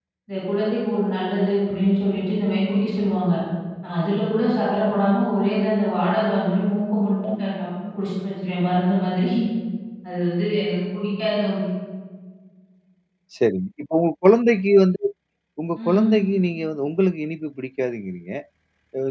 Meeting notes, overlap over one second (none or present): none